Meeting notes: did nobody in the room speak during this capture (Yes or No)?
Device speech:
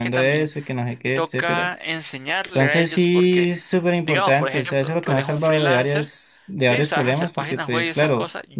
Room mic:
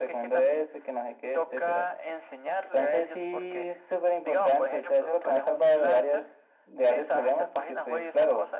Yes